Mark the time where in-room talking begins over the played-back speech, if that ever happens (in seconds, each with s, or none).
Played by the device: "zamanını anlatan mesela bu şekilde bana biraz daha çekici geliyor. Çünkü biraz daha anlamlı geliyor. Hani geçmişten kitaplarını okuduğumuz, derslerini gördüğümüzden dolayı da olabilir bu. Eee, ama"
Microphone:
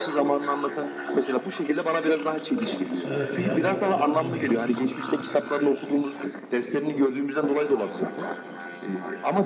3.0 s